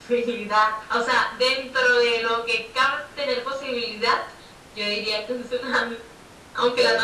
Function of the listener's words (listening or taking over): taking over